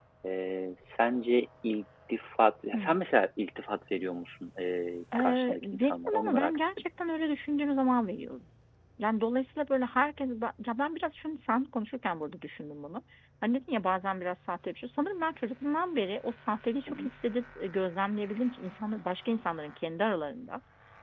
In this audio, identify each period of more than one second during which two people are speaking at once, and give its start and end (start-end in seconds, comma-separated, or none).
5.2-6.6